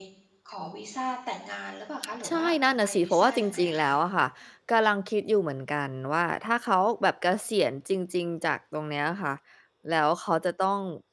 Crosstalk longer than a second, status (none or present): present